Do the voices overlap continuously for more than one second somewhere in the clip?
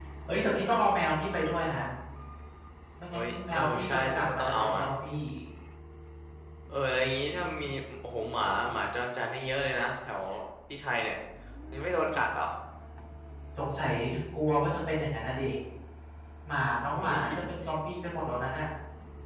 Yes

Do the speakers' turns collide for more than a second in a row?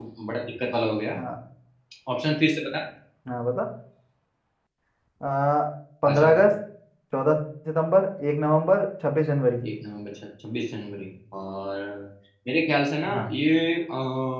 No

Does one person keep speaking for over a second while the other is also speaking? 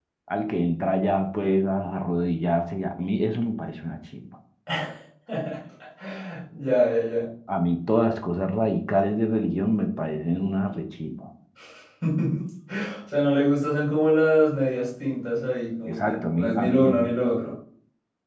Yes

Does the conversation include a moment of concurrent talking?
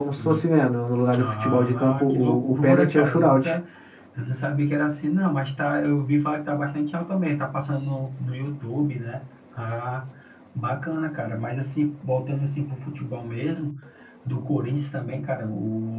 Yes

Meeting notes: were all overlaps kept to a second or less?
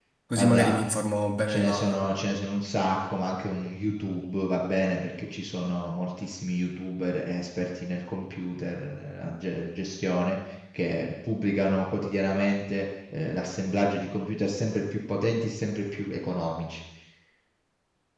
Yes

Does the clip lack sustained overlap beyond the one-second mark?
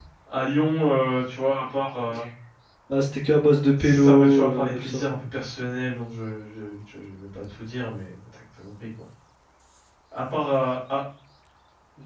No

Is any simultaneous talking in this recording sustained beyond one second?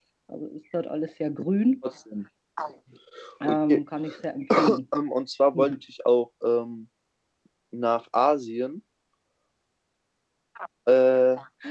No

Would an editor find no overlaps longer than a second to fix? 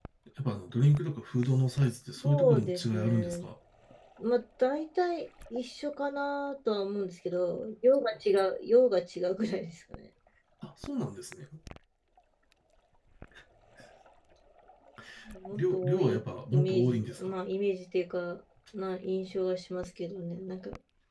No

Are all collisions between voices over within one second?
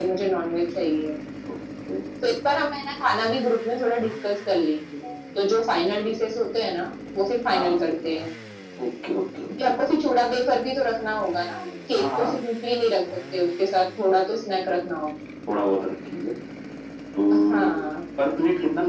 Yes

